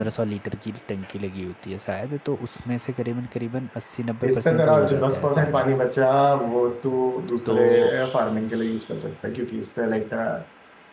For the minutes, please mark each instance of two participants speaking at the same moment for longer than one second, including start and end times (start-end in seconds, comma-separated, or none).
4.3-5.7